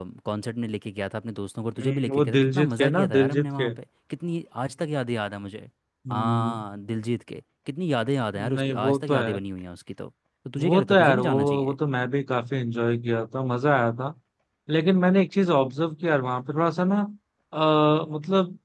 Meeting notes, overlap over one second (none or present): present